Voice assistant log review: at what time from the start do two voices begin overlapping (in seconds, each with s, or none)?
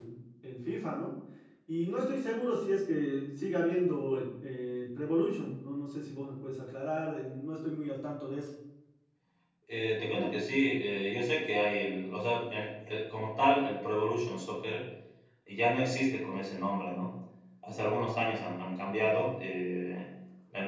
none